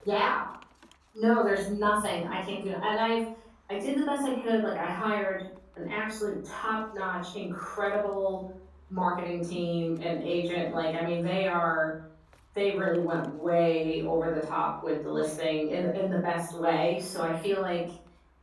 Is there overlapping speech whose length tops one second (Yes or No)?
No